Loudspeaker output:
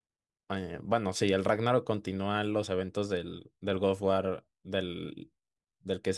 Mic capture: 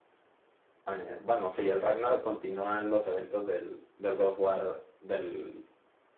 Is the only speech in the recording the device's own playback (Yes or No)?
Yes